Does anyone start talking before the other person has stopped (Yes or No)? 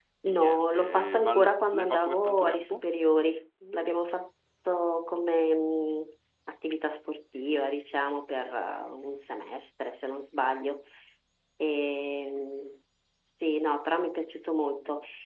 Yes